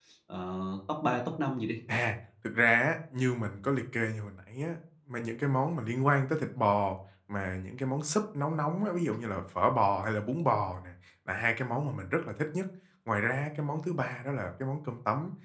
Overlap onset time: none

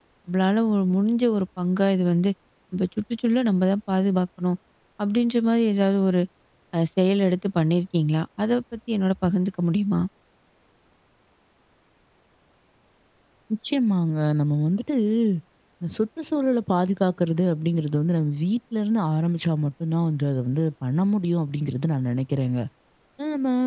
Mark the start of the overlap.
none

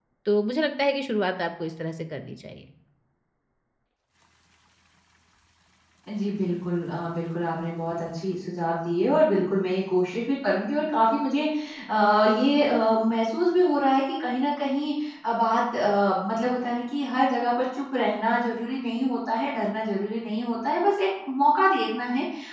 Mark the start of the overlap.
none

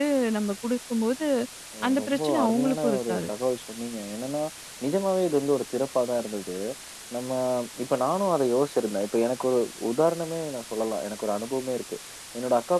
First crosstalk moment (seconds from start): 2 s

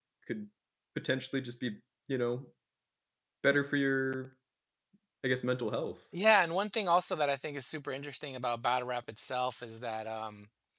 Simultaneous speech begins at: none

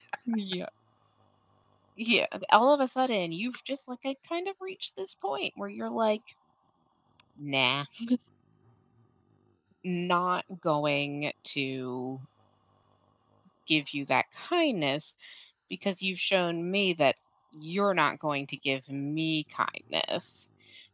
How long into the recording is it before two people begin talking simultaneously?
none

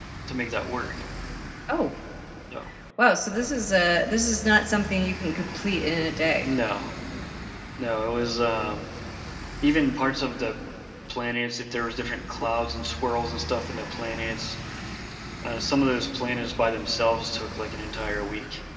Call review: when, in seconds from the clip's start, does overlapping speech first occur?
none

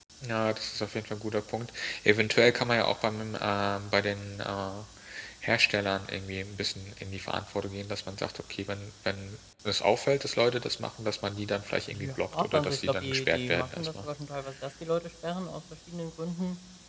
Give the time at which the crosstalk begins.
12 s

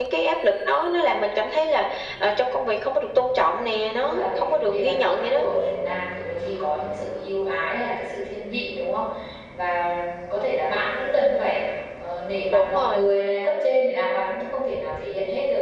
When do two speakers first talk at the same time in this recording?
4 s

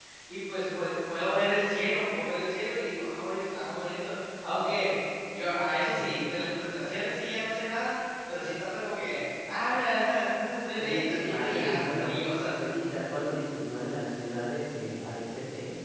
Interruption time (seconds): 11 s

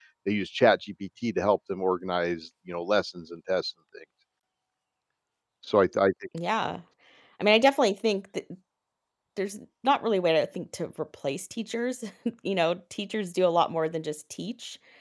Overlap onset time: none

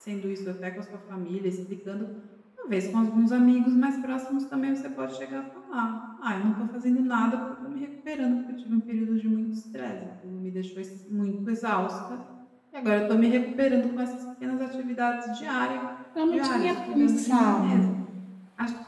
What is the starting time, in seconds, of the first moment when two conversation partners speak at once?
16 s

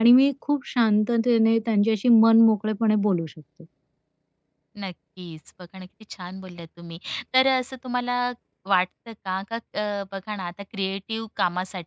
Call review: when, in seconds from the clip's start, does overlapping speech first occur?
none

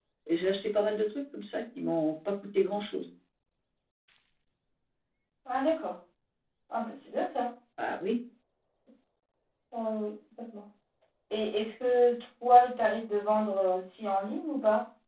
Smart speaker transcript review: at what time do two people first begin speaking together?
none

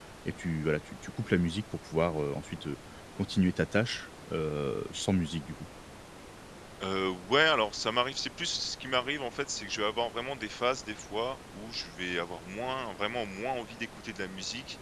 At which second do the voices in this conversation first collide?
none

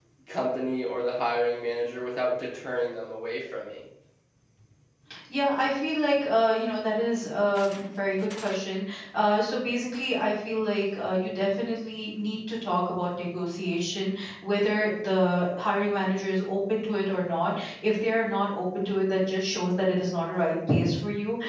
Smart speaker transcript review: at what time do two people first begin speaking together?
none

